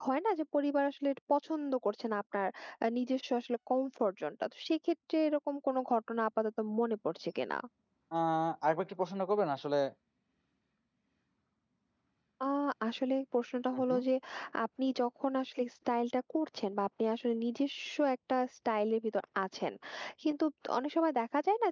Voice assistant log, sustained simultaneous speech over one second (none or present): none